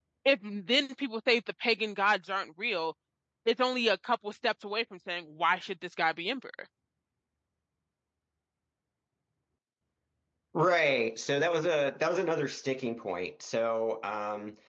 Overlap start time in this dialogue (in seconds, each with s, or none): none